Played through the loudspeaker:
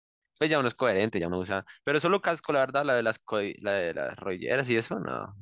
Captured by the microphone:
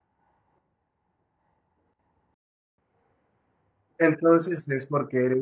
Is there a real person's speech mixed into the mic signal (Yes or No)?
Yes